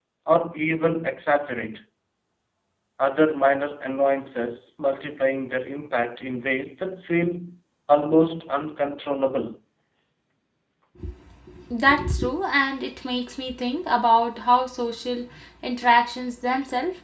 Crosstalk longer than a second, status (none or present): none